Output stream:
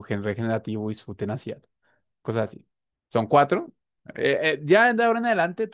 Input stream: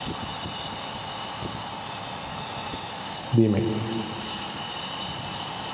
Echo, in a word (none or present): none